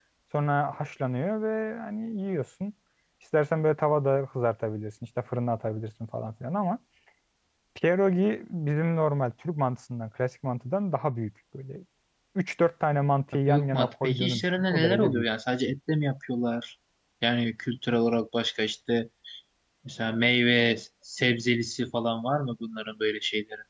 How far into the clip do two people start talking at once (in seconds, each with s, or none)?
13.5 s